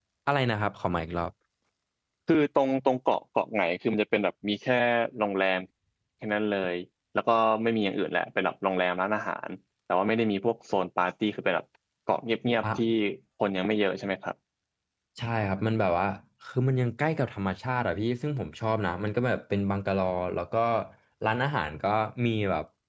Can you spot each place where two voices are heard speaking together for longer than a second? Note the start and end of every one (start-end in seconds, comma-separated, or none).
none